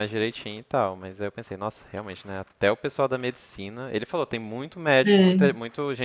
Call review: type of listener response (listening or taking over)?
listening